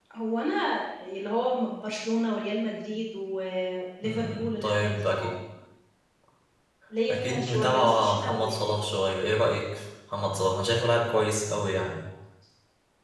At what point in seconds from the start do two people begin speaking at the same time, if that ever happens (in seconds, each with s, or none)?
4.0 s